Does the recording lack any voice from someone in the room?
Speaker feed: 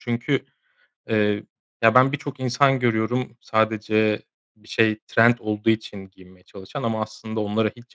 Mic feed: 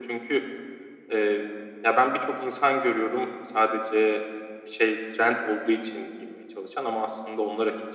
Yes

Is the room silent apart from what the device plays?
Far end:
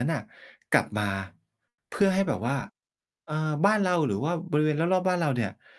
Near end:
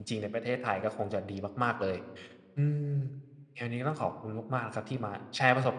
No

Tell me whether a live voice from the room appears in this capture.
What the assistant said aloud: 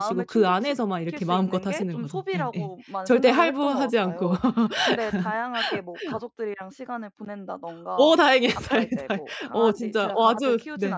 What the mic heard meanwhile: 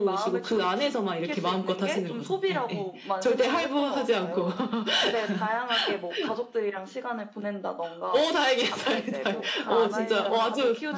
Yes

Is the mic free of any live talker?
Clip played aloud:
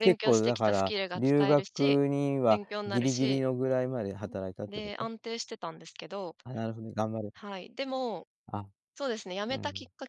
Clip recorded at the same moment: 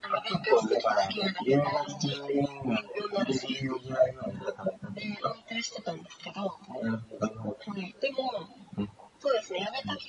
Yes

